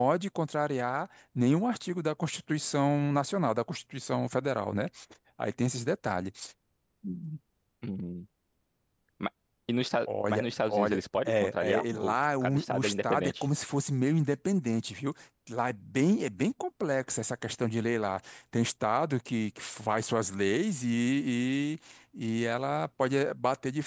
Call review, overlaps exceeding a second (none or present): present